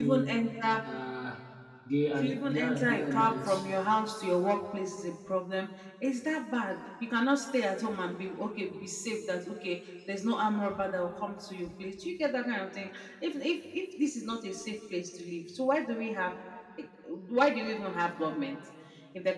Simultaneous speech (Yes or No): Yes